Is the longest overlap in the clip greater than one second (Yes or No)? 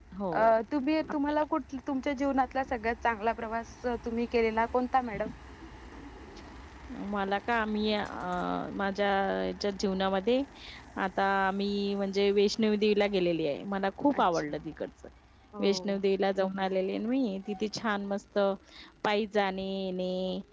No